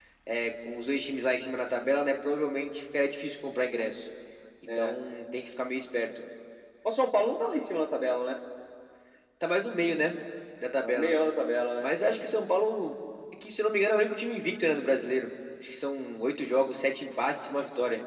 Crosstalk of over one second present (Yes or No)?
No